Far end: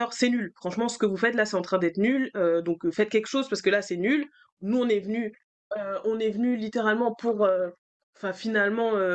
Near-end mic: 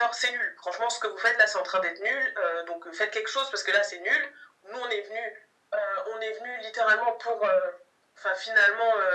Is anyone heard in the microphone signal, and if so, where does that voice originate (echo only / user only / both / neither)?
echo only